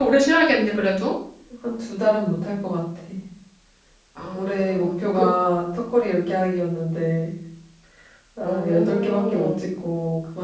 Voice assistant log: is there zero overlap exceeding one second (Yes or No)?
No